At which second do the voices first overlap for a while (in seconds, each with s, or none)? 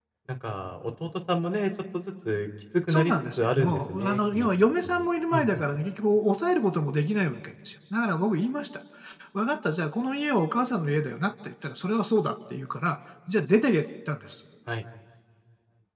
2.9 s